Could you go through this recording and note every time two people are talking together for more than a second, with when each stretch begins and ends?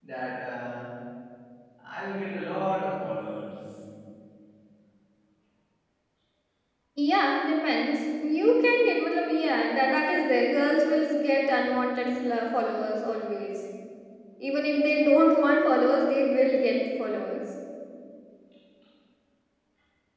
none

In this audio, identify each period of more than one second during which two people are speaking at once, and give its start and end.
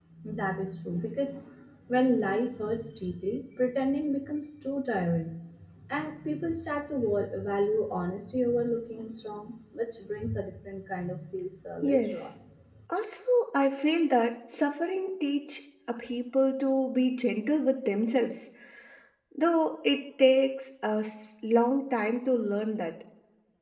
none

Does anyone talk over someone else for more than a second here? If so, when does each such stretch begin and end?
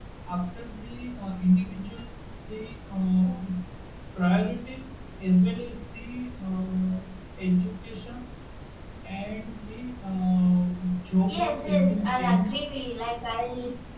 11.3-12.6

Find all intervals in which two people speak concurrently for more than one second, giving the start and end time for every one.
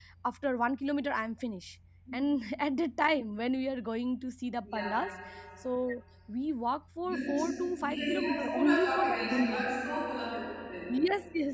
7.8-9.7

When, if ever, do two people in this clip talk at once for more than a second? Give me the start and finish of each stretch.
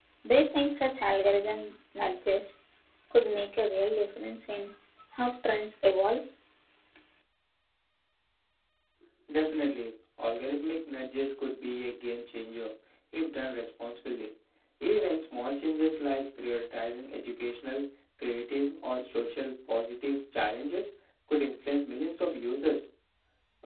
none

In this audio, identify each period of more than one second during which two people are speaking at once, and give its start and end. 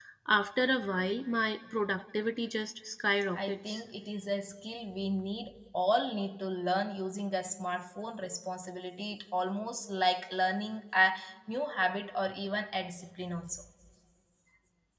none

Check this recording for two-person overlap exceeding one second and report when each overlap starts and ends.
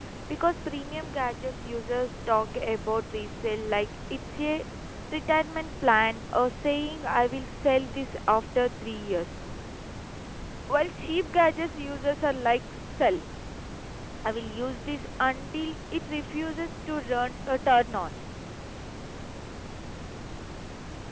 none

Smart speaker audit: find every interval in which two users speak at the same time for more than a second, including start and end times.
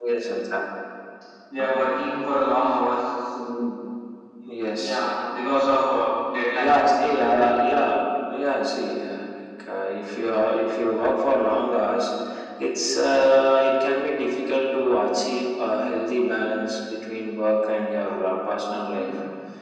none

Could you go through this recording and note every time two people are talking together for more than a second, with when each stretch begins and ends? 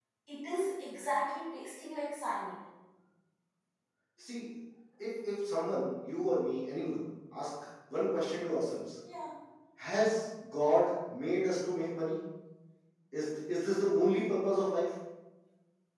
none

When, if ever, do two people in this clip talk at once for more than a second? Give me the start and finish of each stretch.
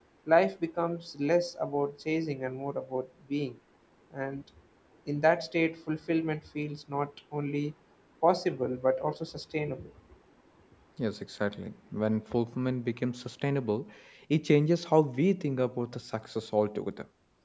none

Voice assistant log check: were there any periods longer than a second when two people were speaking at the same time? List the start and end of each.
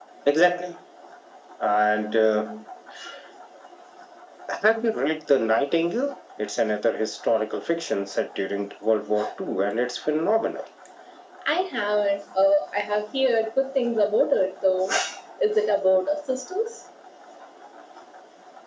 none

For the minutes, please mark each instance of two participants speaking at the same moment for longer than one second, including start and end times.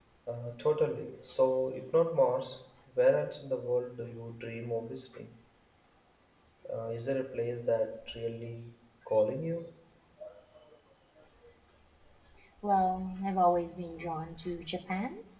none

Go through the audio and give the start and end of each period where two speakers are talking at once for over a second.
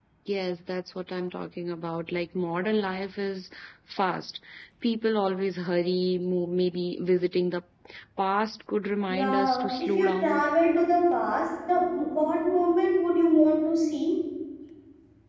9.1-10.4

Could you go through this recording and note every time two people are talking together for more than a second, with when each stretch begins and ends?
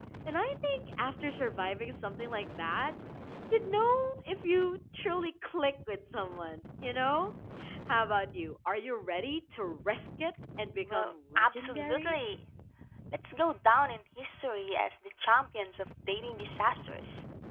10.9-12.2

